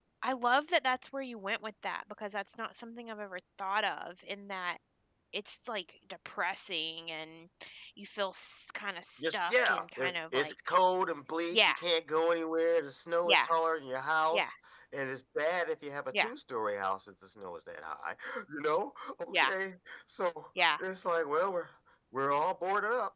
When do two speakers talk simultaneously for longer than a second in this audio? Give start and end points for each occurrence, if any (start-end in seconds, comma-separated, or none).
9.2-10.5